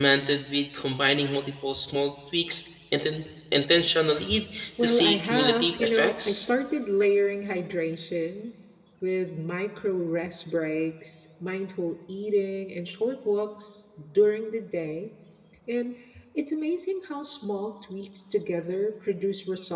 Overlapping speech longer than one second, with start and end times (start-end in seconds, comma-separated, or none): 4.8-6.5